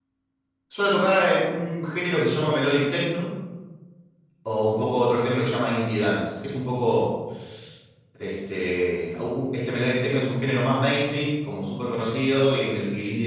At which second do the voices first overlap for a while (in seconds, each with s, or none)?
none